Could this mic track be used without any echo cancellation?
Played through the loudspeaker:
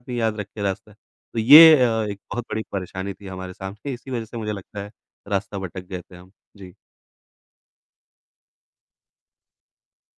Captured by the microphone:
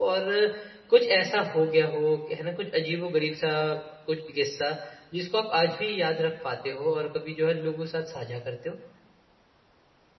Yes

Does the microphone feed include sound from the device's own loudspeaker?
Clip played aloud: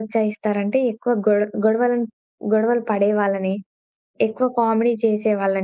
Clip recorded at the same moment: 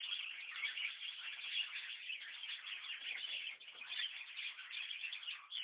No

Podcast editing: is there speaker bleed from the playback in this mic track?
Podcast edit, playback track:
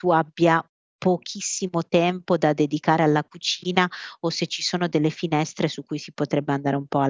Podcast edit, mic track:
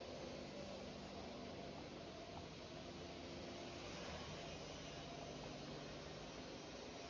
No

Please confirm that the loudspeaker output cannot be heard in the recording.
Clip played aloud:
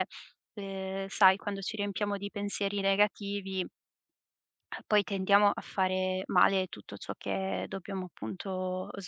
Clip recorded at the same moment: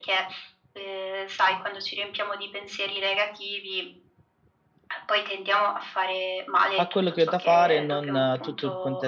No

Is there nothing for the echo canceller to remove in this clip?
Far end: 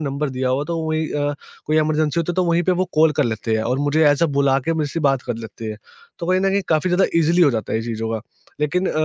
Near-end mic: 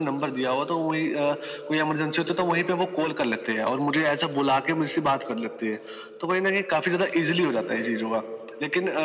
No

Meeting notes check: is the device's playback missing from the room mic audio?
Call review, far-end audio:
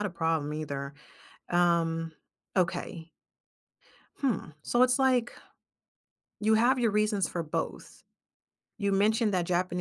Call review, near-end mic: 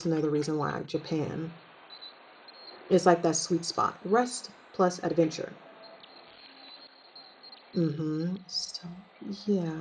Yes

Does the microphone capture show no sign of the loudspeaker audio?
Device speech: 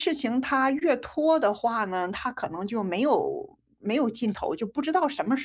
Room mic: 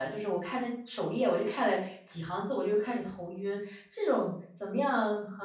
Yes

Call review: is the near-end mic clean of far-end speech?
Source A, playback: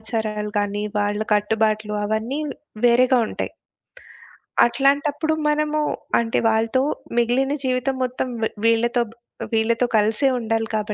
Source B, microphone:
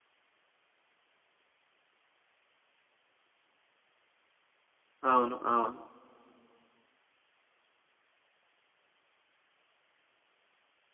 Yes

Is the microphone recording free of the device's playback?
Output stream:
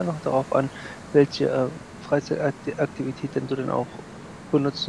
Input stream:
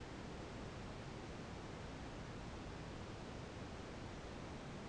Yes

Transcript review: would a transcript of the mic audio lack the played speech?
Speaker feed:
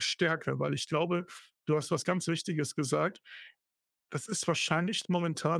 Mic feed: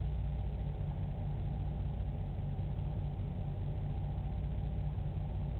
Yes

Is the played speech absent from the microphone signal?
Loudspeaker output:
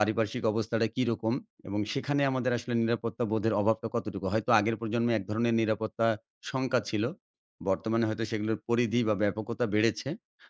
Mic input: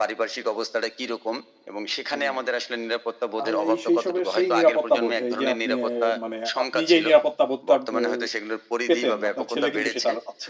No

